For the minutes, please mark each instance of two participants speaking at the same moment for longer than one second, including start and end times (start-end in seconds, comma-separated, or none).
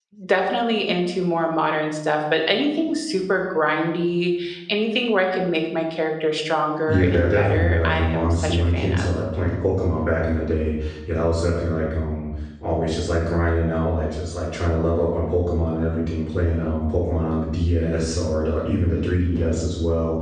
6.9-9.1